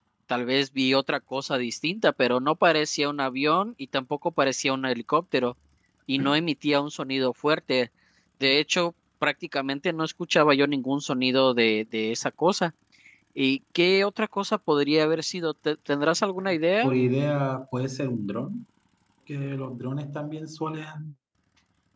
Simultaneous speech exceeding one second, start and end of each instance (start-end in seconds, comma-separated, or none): none